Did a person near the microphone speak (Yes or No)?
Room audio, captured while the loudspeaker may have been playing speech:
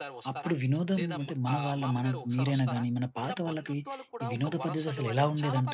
Yes